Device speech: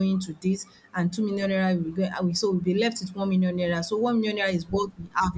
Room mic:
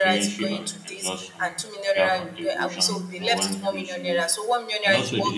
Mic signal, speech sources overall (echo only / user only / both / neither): both